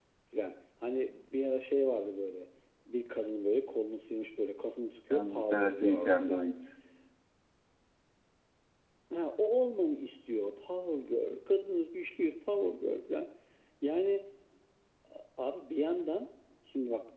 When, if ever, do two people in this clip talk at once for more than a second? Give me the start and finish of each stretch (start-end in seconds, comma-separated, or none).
5.1-6.5